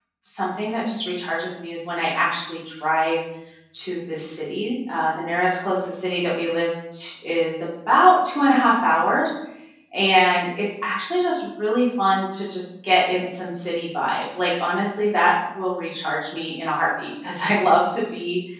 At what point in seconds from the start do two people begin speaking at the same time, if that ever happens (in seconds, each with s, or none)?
none